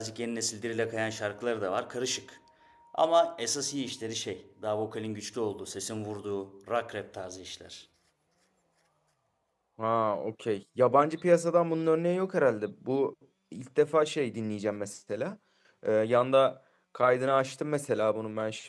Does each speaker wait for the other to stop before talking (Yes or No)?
Yes